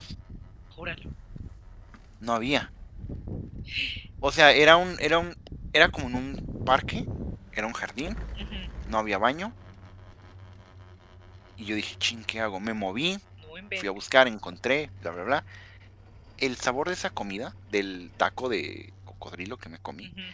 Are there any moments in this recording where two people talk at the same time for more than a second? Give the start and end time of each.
none

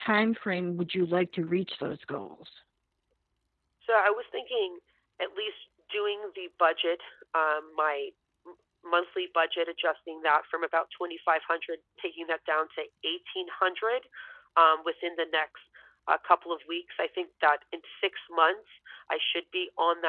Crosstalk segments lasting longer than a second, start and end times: none

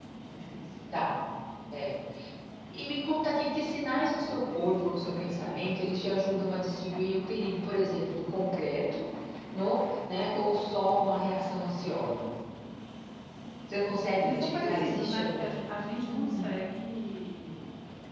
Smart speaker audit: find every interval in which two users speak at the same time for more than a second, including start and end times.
14.2-15.5

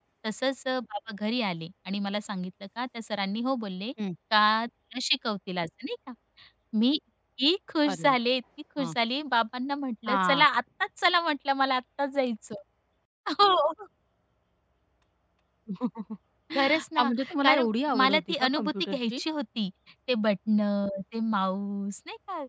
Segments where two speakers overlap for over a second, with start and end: 16.6-19.2

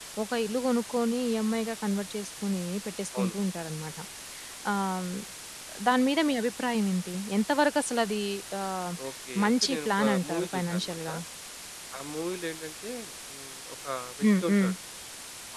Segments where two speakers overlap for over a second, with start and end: 9.4-11.0

